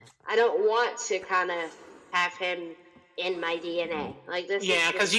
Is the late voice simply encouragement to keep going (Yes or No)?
No